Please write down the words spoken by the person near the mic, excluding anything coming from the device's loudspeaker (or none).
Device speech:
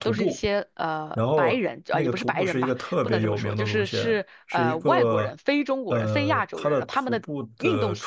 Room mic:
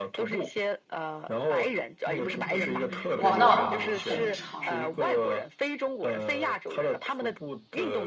嗯，哇，那很长，